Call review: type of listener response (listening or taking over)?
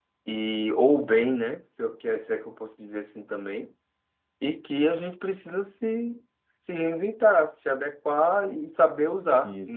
listening